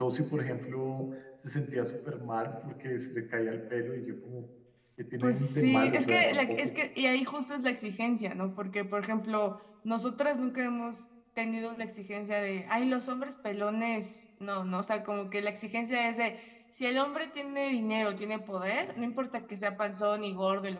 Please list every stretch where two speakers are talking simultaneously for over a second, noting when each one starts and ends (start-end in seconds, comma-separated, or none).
5.2-6.7